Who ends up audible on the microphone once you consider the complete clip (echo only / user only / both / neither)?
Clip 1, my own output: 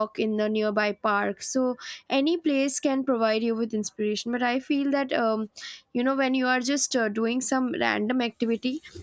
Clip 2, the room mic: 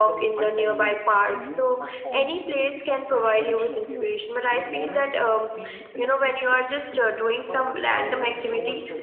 both